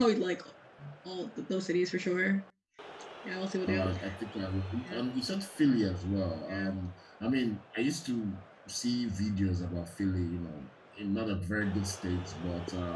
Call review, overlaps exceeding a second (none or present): none